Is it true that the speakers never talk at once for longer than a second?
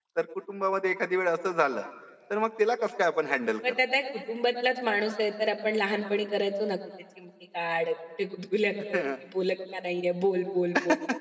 Yes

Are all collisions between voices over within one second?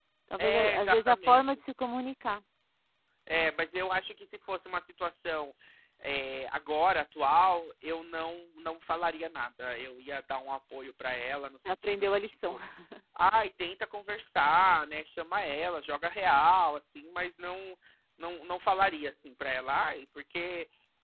No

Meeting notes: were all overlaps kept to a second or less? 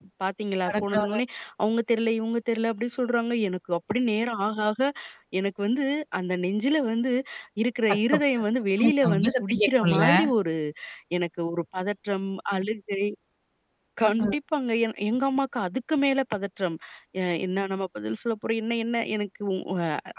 No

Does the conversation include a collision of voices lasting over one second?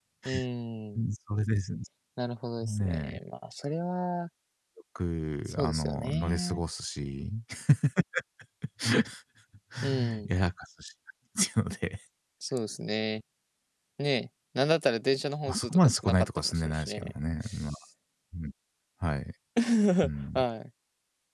Yes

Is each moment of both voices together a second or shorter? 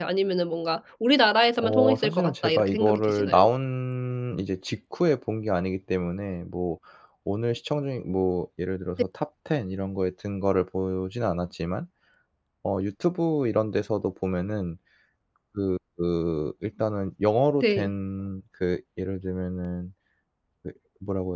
No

